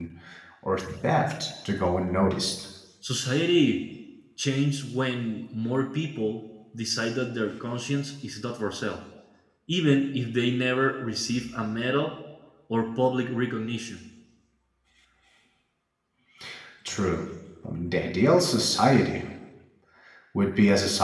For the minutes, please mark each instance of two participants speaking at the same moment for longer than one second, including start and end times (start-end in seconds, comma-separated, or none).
none